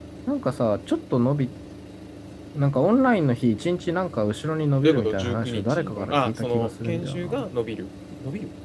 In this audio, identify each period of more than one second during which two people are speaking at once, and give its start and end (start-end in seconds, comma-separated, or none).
4.8-7.4